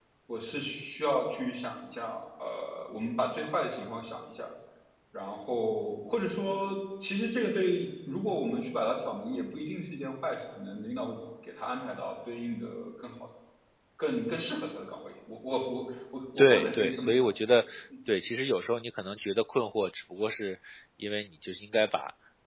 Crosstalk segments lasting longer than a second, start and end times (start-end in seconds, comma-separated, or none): 16.4-17.6